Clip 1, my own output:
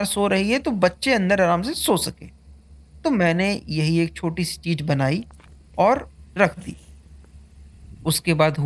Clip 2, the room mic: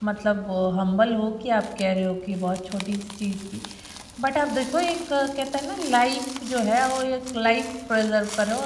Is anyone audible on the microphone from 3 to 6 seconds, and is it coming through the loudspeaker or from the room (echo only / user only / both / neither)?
user only